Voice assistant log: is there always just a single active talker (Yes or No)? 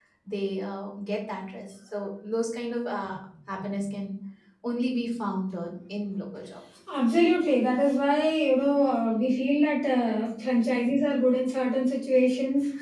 Yes